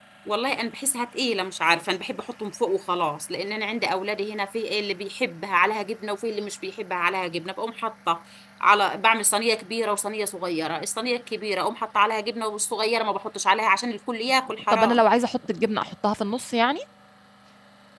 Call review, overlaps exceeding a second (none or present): none